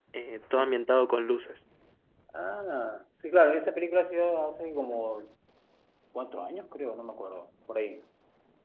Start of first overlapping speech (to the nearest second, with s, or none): none